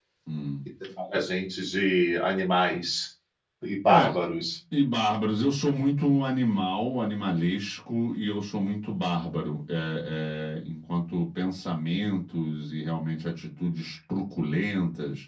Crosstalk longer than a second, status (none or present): none